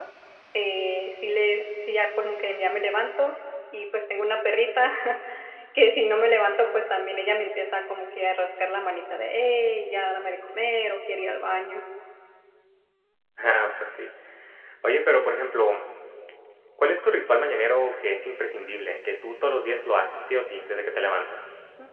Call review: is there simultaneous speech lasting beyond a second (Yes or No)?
No